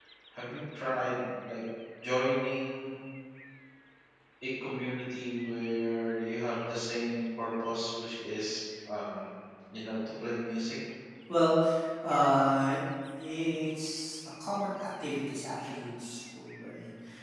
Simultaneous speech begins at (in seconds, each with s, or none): none